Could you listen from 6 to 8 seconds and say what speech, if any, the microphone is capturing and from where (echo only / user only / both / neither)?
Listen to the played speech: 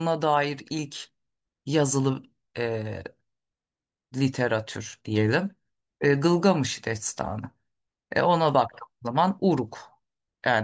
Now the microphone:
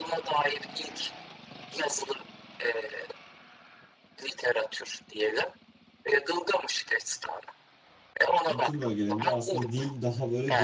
echo only